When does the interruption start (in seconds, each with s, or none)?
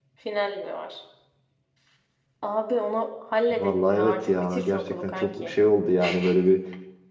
3.5 s